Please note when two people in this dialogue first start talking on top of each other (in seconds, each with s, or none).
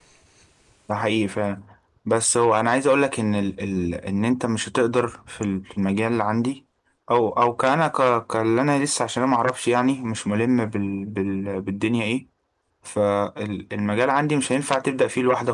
none